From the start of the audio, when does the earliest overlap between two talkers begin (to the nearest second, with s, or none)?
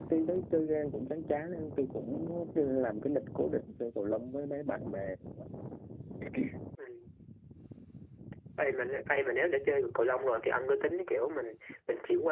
none